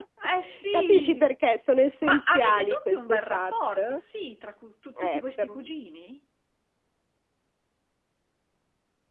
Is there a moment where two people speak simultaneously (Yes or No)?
Yes